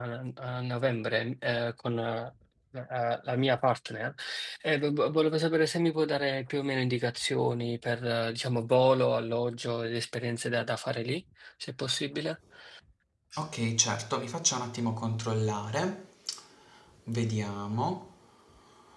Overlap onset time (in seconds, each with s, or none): none